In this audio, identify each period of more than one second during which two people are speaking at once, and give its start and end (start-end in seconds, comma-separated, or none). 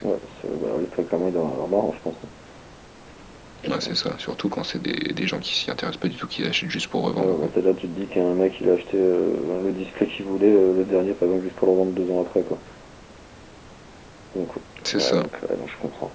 none